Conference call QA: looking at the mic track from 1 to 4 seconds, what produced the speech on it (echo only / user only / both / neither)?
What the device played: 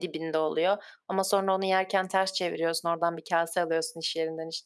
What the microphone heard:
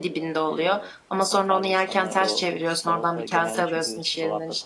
both